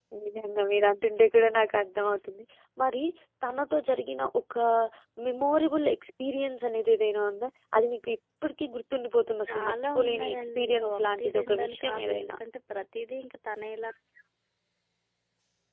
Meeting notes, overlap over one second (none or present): present